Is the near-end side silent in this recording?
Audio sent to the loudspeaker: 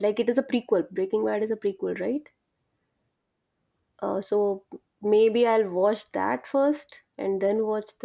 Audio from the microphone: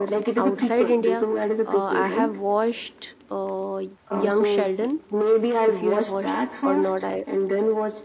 No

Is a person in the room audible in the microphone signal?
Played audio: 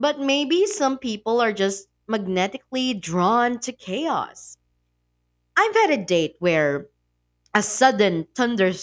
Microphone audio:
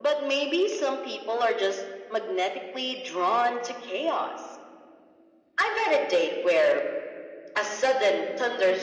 No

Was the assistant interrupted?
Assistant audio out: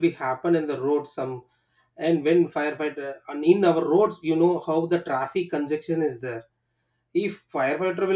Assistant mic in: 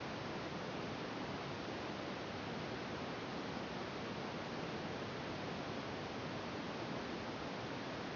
No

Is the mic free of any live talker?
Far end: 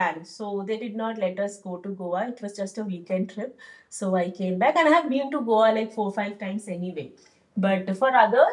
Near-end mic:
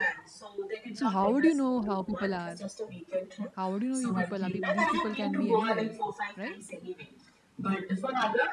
No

